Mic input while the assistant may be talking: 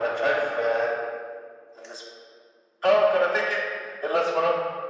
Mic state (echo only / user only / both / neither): echo only